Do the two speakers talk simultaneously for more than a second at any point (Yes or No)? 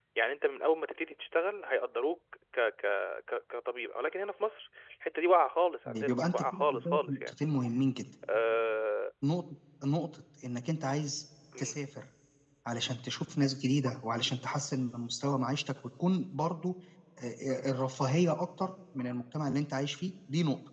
Yes